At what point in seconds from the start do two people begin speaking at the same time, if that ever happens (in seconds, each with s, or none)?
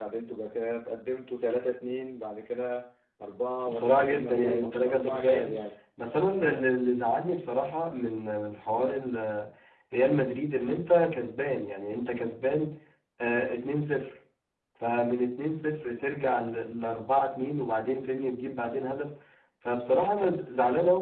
3.6 s